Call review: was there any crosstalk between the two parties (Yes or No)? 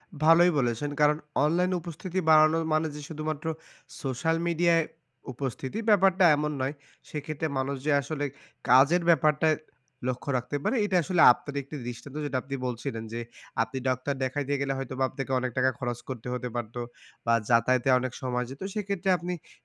No